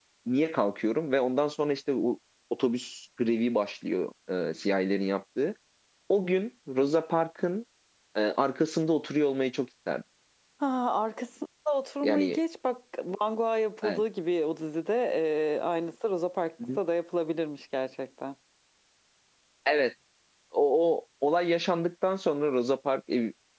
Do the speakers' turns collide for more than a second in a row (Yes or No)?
No